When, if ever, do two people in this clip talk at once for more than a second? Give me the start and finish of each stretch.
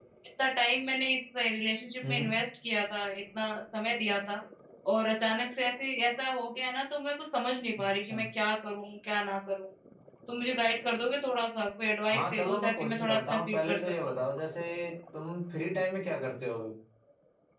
12.1-14.2

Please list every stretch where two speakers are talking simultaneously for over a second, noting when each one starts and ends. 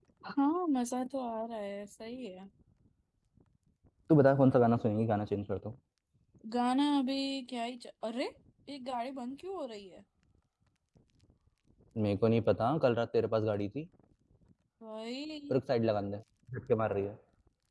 none

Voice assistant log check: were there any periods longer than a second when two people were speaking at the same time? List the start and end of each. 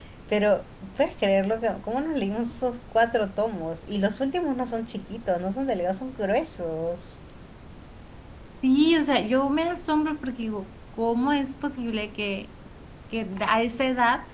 none

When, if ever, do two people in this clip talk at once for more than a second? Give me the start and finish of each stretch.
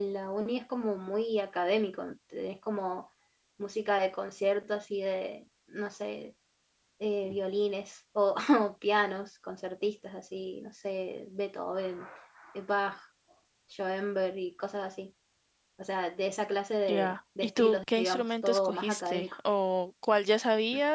16.9-19.4

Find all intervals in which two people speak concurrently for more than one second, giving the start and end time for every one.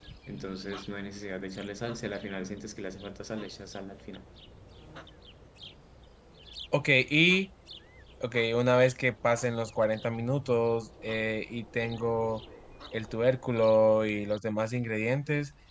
none

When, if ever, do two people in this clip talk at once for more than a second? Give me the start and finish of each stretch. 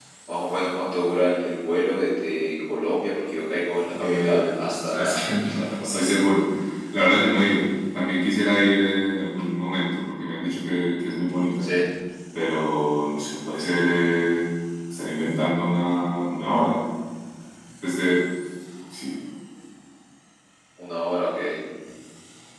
4.0-6.1

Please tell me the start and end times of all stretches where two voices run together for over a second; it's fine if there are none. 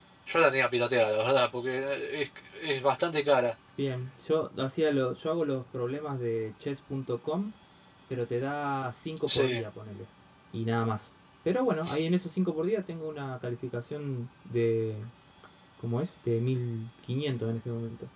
none

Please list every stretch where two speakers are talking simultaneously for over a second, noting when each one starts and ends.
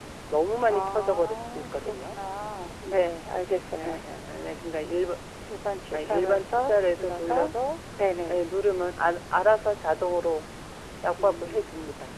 0.6-2.2, 6.1-7.5

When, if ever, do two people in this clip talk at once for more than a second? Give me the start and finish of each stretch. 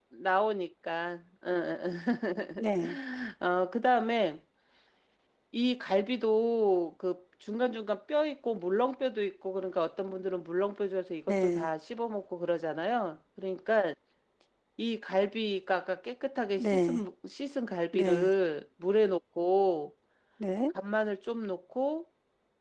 none

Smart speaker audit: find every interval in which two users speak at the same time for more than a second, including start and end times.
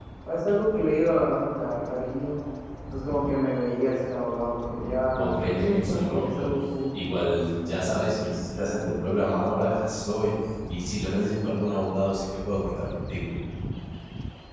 5.2-6.5

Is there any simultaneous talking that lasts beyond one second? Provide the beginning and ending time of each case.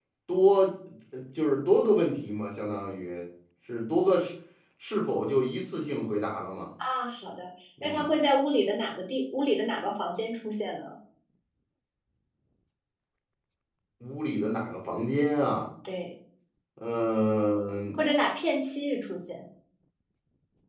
none

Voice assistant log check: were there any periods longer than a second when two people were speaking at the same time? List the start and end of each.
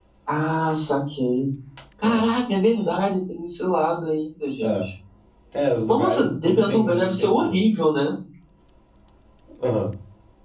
5.9-7.5

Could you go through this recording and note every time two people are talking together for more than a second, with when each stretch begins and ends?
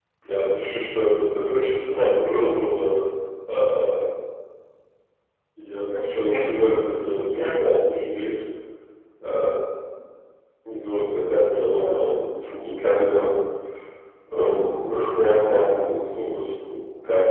6.2-7.7

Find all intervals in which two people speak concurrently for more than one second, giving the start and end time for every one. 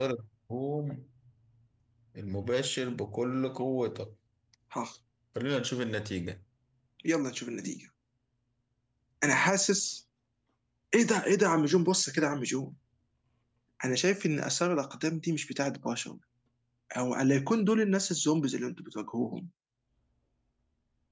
none

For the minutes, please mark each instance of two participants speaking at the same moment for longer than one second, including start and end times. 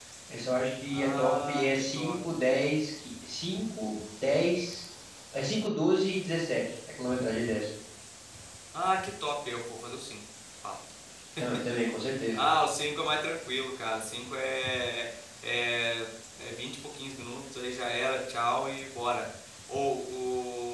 0.9-2.1

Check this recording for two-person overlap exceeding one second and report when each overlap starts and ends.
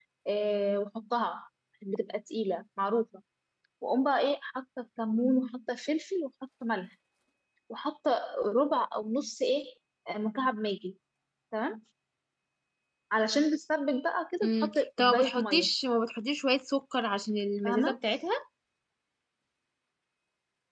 14.4-15.7

